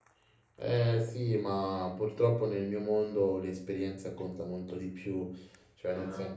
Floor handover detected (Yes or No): No